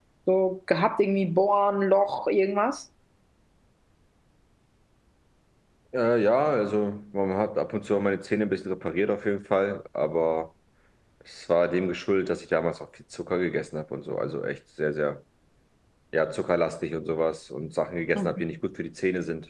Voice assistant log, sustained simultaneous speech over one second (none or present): none